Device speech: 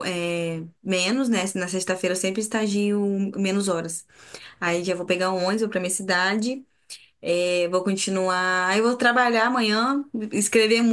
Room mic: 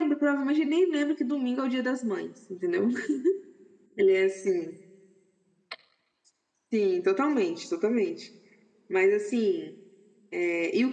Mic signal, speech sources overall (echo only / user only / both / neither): user only